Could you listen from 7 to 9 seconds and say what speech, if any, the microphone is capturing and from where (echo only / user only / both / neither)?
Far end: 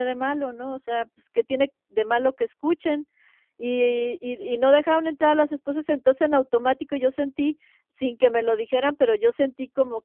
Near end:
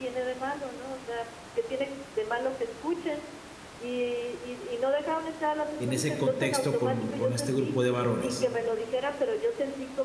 both